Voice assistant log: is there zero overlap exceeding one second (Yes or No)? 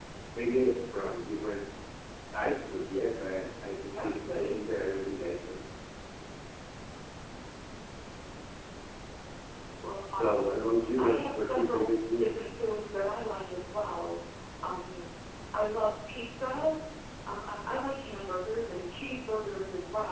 No